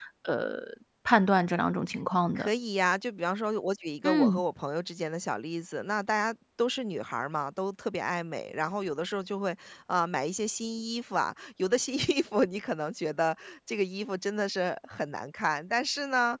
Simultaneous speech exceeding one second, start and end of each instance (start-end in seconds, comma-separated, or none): none